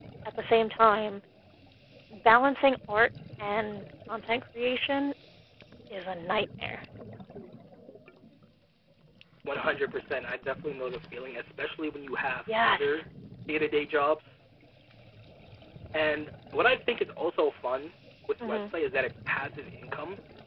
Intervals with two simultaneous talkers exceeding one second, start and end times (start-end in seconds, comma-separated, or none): none